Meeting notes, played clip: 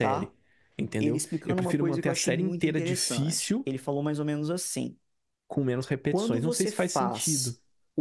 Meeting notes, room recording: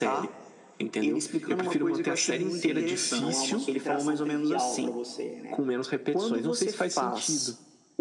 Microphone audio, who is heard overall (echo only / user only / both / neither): both